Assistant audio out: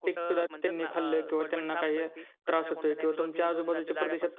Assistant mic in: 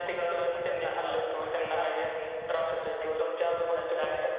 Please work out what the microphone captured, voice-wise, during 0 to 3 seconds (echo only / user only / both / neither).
echo only